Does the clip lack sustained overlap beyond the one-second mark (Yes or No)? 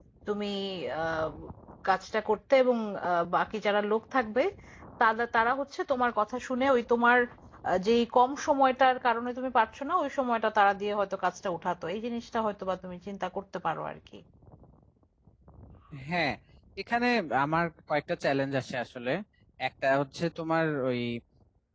Yes